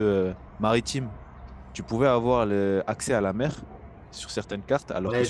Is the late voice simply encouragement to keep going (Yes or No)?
No